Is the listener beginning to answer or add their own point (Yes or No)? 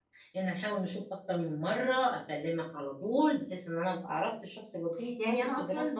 Yes